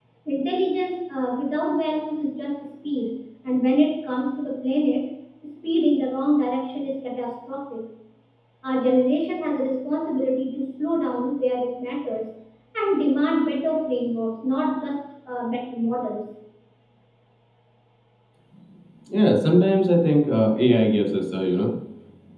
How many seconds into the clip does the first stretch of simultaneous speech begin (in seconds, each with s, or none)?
none